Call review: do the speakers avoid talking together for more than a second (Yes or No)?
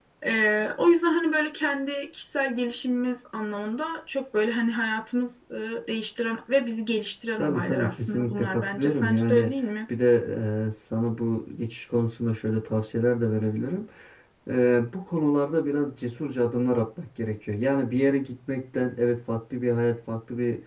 No